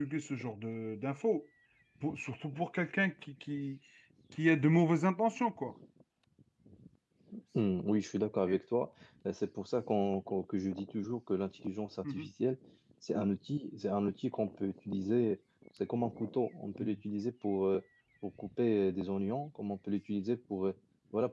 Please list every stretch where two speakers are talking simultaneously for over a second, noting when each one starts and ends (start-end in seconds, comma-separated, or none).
none